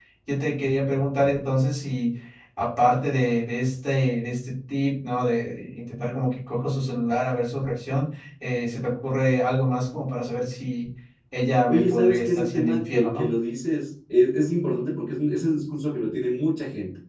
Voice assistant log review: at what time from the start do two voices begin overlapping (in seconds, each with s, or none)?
11.7 s